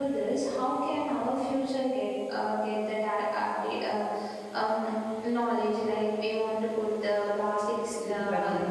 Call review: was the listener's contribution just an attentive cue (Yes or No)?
Yes